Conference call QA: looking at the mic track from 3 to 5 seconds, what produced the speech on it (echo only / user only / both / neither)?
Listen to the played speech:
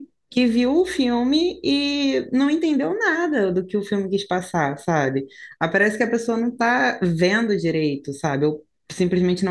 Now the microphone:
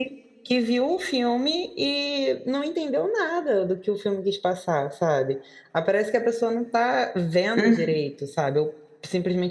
echo only